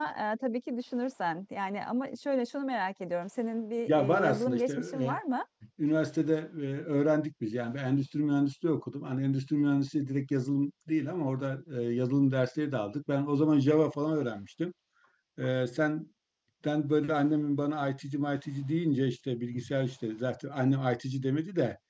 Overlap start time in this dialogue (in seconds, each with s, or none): 3.9 s